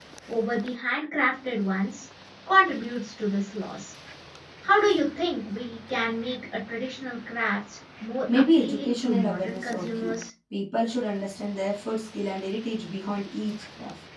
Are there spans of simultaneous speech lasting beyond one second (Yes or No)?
Yes